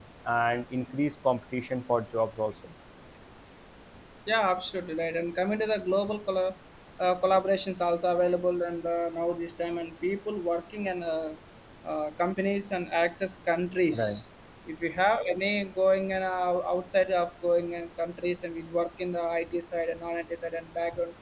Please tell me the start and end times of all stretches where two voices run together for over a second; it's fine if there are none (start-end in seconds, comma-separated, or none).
none